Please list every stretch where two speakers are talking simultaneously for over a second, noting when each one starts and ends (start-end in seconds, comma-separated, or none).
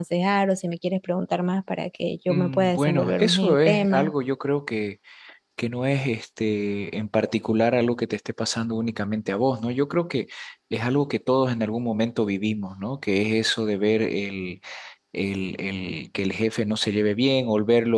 2.3-4.1